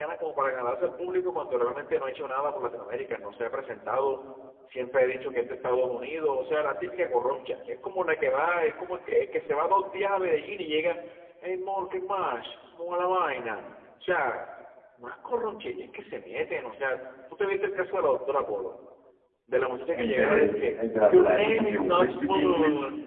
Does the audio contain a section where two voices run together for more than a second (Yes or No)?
Yes